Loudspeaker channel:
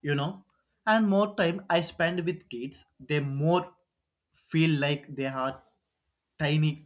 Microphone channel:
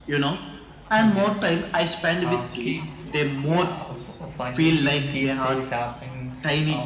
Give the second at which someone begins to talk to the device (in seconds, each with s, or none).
1.0 s